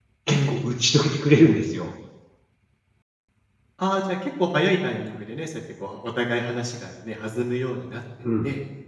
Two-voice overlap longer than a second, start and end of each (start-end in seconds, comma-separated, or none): none